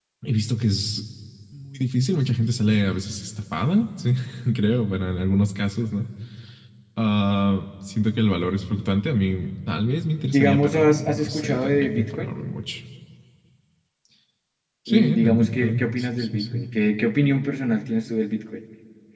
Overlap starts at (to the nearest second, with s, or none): 10 s